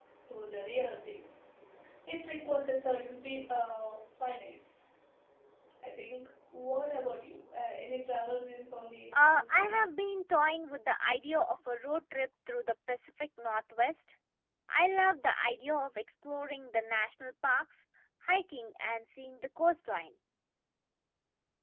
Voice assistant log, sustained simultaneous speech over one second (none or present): none